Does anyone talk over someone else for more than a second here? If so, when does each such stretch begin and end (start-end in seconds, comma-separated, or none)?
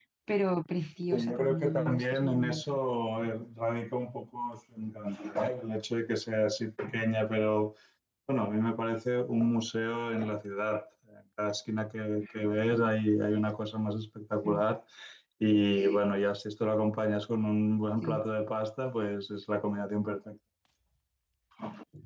1.1-2.8